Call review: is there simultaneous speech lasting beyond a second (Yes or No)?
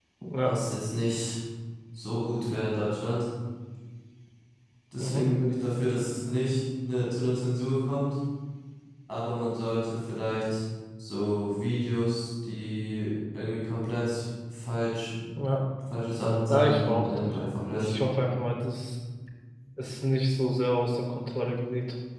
Yes